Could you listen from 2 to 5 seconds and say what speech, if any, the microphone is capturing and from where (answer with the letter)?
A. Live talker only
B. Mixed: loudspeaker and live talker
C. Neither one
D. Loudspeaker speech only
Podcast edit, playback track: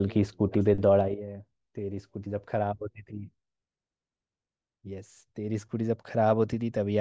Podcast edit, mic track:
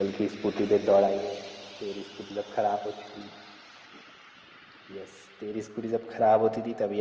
D